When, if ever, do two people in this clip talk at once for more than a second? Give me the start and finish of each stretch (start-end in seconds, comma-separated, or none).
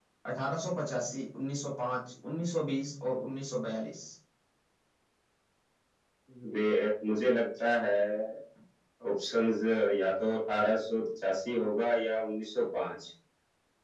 none